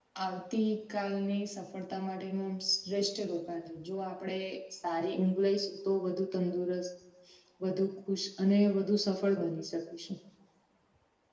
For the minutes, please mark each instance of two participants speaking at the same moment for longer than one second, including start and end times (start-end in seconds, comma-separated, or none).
none